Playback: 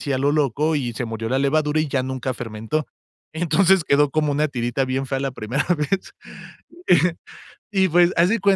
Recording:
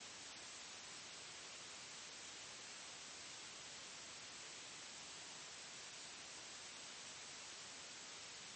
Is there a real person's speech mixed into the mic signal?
No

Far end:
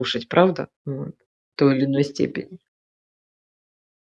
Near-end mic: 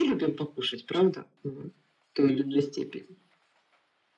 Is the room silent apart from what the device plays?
Yes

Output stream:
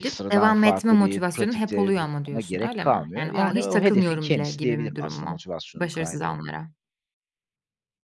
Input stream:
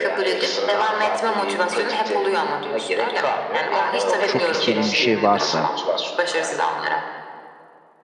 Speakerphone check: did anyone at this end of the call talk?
Yes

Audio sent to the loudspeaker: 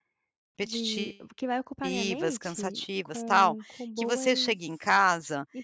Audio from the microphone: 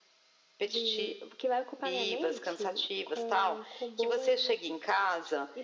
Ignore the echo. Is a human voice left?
No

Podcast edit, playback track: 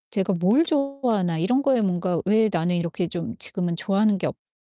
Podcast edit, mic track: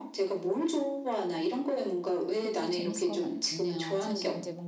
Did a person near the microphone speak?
Yes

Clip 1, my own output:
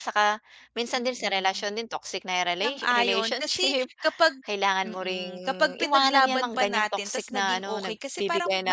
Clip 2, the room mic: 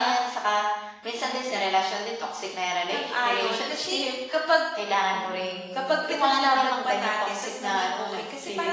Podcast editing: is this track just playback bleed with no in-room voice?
Yes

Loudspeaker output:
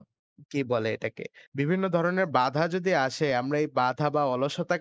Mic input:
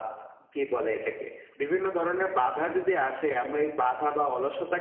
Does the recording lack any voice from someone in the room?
Yes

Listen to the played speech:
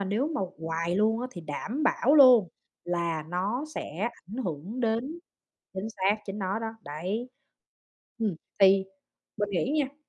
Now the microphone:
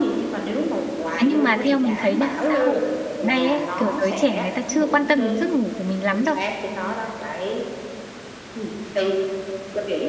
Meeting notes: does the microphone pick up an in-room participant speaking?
Yes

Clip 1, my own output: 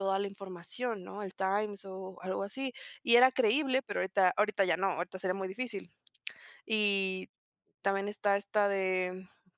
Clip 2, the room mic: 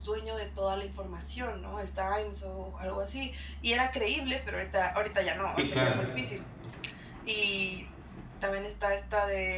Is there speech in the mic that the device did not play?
Yes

